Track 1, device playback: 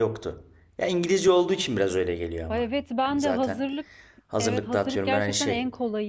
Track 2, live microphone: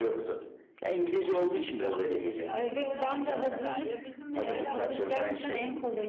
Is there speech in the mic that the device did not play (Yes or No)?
Yes